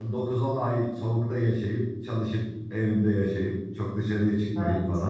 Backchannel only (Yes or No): Yes